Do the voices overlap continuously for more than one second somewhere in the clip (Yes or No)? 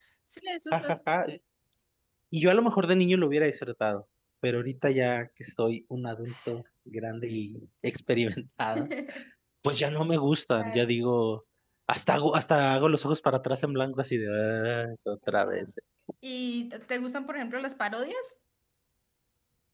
No